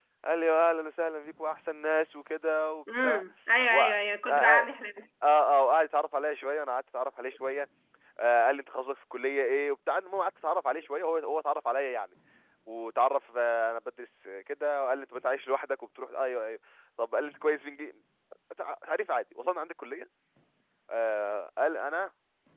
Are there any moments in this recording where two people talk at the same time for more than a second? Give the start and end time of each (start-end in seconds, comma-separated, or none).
none